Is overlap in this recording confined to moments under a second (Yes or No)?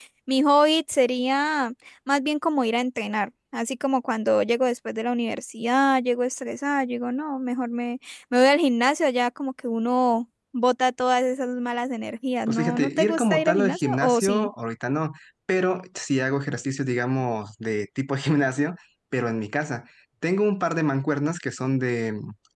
No